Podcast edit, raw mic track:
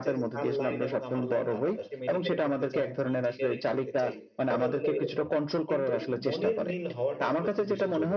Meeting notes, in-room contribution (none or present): present